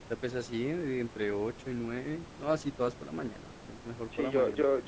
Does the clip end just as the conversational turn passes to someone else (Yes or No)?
Yes